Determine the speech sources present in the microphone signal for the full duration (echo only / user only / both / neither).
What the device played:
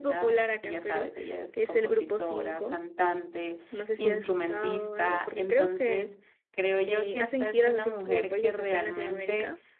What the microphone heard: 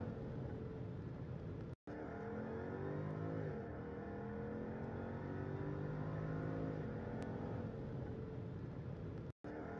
neither